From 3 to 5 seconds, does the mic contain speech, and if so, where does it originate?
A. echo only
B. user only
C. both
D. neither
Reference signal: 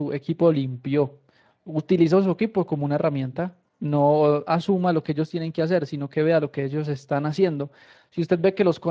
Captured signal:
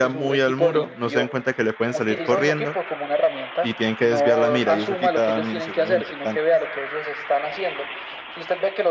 C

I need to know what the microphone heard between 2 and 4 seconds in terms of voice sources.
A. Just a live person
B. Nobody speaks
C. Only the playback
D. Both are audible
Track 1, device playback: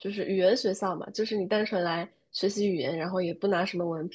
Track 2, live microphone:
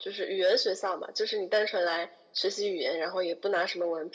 C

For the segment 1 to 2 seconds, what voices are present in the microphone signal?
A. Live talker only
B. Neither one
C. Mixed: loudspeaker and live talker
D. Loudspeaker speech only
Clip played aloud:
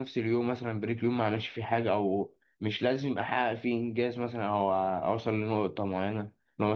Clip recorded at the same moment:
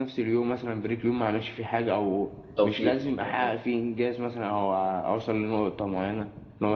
D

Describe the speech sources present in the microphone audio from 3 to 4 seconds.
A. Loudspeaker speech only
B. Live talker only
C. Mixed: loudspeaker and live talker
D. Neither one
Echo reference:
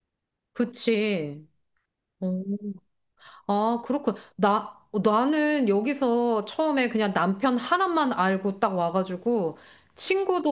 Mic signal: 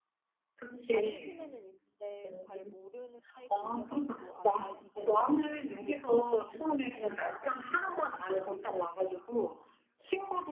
C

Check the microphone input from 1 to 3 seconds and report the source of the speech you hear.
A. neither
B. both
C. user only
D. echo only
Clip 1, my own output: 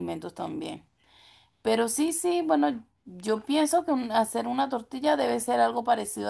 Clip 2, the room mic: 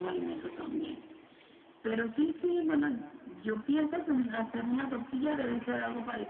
D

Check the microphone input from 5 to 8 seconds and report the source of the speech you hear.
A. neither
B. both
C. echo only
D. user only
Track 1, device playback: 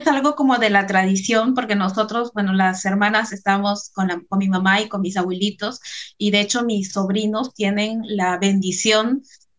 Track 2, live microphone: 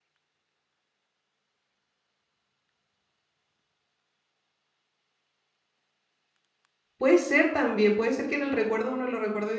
D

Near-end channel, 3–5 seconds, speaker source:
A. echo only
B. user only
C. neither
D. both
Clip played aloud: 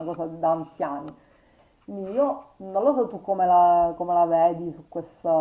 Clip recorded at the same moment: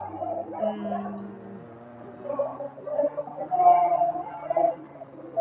A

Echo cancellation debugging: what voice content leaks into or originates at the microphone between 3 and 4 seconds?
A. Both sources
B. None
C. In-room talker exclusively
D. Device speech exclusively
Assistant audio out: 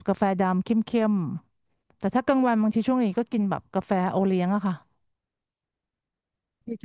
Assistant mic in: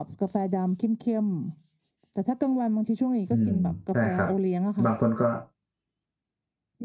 A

